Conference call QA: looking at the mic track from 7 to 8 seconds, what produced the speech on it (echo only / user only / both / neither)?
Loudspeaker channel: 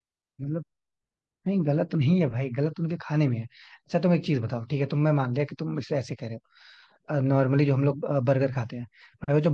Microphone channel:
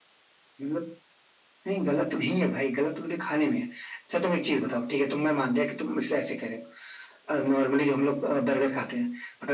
echo only